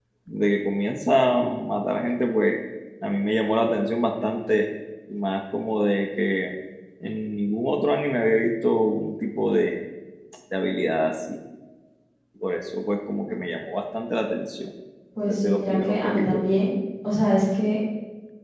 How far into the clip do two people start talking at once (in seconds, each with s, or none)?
15.3 s